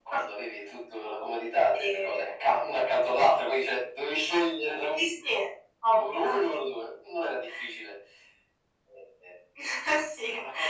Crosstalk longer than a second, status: none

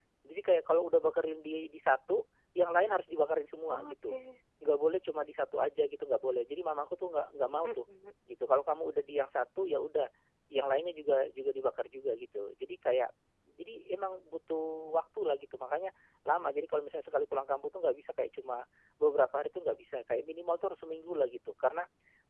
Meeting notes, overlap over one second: none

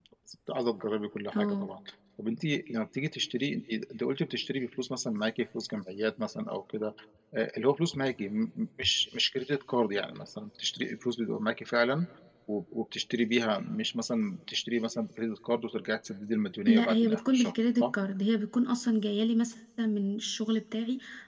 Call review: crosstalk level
present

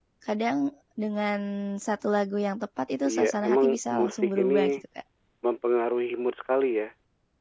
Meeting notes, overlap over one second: present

